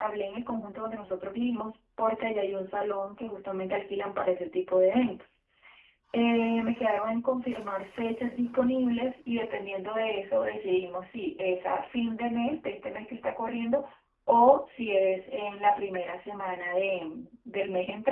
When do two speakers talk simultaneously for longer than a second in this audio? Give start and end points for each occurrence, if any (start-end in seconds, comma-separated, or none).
none